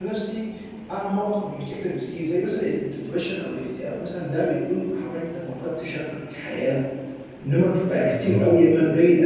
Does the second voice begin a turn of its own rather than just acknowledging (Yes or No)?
No